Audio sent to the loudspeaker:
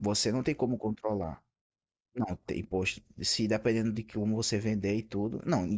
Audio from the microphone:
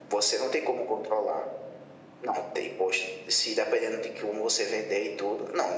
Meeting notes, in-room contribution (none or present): none